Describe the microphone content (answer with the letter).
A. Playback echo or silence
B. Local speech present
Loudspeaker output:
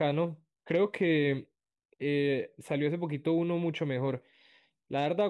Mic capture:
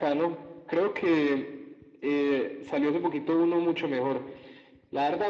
A